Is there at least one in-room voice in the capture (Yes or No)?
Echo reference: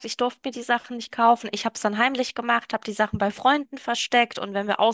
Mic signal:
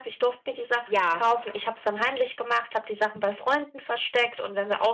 Yes